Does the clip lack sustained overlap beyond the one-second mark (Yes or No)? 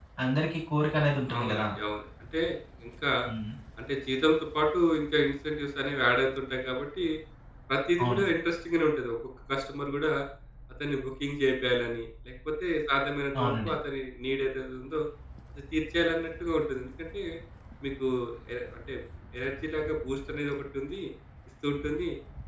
Yes